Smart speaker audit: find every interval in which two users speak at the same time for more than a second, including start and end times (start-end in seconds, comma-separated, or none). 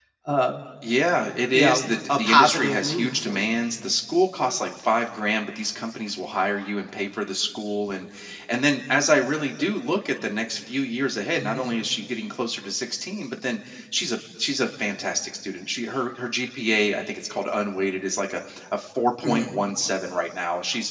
1.5-3.6